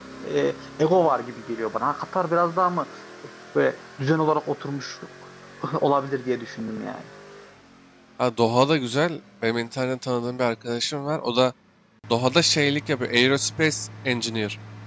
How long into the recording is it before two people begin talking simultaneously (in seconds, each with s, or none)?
none